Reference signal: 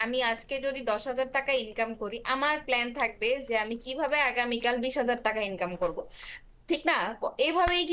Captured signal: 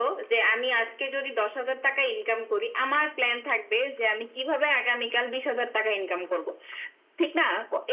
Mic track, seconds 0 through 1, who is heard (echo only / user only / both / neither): echo only